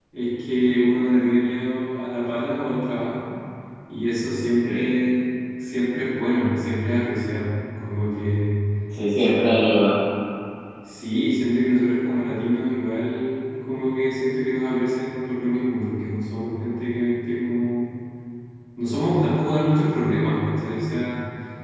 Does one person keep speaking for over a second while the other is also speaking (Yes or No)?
No